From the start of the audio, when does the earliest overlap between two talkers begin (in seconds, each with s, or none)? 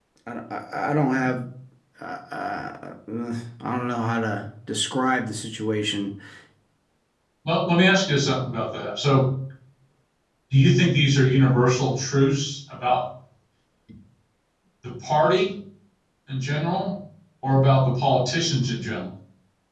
none